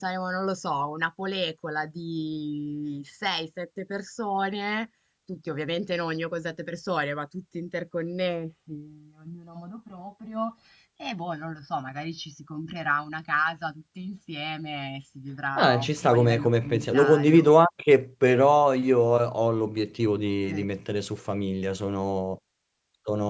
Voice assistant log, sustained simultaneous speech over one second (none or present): present